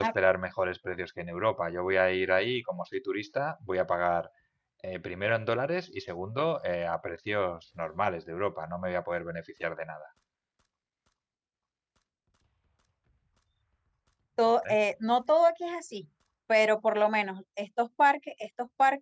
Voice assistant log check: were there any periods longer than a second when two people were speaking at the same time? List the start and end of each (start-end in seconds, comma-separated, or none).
none